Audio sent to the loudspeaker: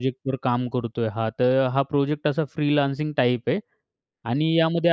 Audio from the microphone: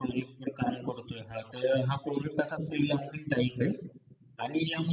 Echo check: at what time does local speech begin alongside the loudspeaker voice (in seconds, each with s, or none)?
none